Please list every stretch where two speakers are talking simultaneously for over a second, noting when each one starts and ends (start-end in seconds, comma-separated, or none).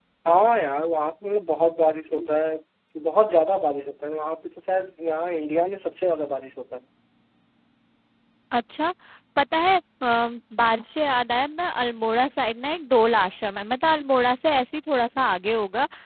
none